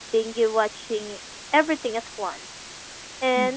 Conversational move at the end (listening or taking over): listening